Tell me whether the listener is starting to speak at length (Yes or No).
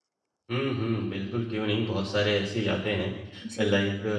No